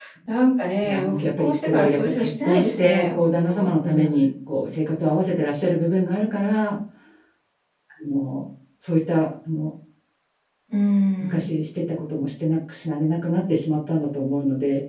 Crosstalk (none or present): present